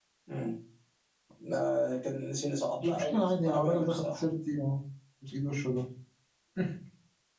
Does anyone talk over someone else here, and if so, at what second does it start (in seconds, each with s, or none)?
2.8 s